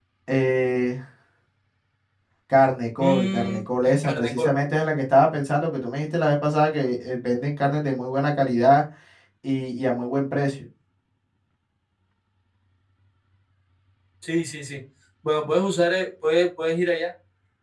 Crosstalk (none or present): present